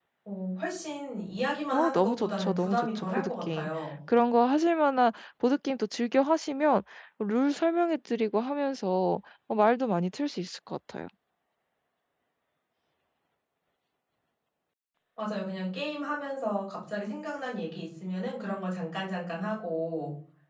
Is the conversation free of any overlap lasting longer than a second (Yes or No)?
No